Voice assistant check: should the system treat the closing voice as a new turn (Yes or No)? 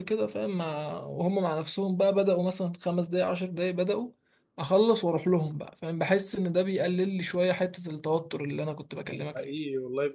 Yes